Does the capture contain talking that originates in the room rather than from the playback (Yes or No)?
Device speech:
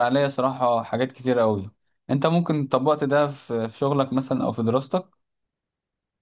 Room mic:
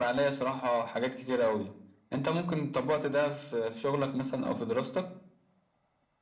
No